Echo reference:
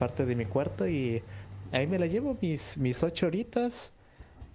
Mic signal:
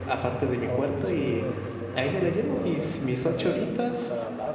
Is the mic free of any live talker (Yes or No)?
No